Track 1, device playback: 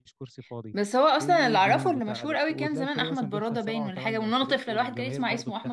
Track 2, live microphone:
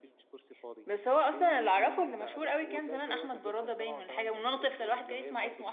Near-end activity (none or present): none